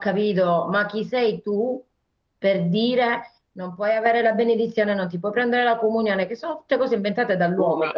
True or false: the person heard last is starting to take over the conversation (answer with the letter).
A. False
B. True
A